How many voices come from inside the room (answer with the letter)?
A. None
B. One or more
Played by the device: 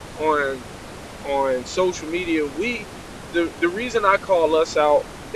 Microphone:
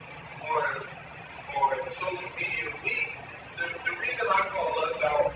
A